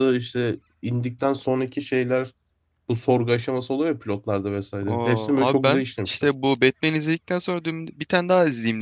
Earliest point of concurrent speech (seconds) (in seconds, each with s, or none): 4.8 s